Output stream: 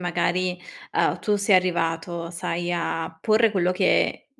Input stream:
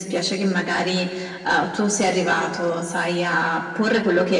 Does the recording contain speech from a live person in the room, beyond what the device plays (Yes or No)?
No